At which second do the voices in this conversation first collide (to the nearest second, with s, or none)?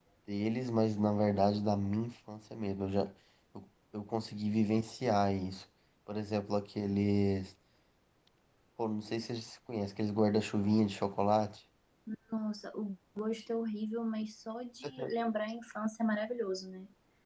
none